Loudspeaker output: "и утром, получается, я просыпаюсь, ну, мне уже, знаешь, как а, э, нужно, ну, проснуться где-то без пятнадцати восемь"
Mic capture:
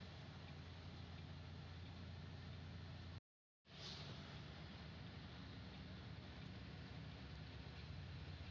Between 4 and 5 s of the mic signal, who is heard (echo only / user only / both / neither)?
neither